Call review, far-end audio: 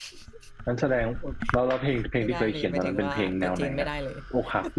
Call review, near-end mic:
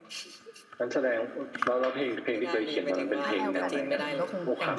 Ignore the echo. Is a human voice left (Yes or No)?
Yes